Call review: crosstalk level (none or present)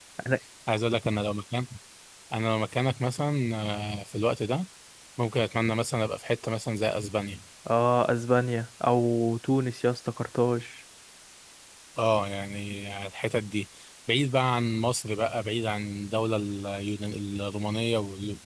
none